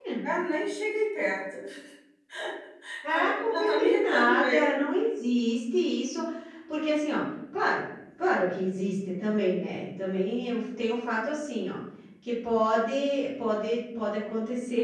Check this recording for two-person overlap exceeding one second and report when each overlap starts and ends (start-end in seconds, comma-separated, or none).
3.1-4.7